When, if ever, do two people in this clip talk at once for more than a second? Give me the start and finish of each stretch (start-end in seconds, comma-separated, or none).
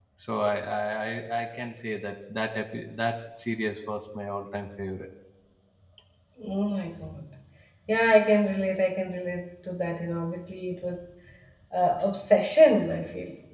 none